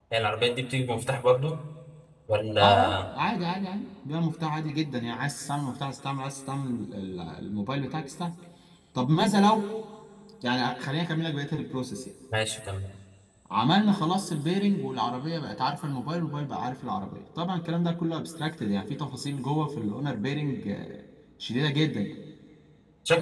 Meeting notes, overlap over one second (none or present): none